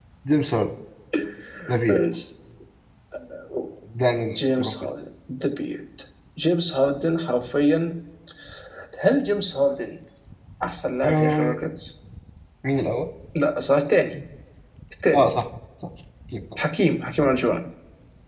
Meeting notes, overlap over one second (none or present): none